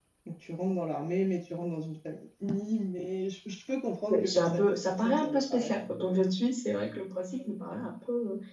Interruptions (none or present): present